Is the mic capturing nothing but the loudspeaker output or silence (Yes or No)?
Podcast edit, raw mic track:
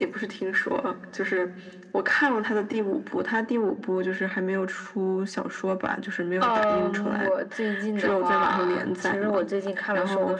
Yes